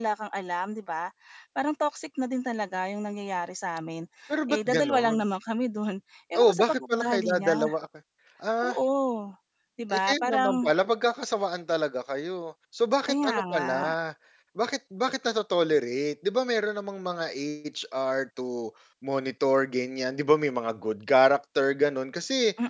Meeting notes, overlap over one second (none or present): present